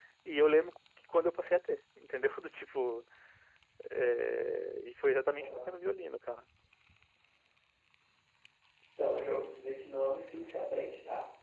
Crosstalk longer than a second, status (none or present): none